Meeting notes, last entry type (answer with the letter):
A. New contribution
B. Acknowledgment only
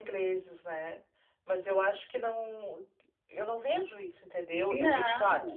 B